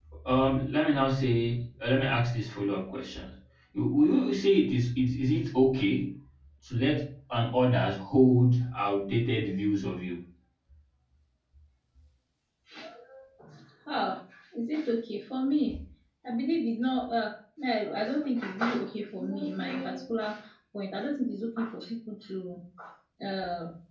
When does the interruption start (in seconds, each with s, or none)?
none